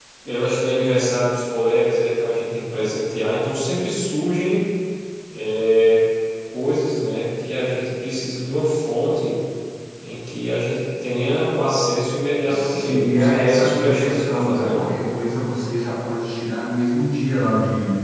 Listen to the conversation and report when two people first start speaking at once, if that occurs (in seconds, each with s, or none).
12.4 s